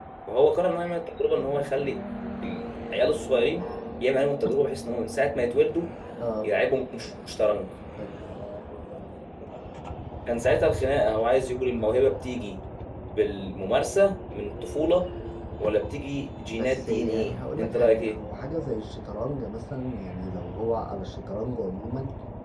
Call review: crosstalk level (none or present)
present